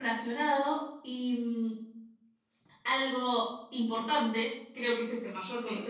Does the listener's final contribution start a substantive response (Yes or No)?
No